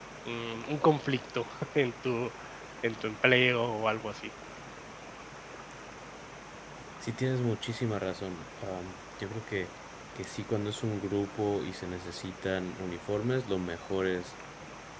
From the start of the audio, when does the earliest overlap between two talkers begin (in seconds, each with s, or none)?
none